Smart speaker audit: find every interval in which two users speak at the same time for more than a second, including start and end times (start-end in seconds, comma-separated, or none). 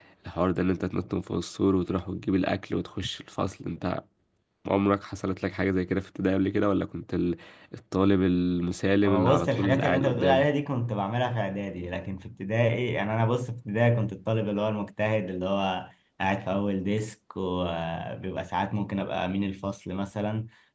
9.0-10.4